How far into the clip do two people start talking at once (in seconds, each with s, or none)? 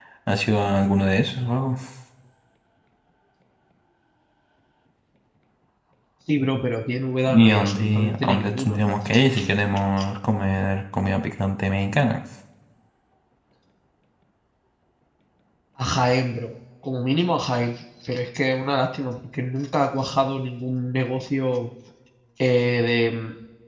7.3 s